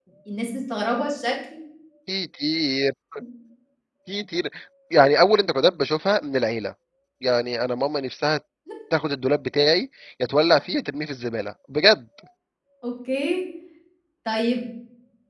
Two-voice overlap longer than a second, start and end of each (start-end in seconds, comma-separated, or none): none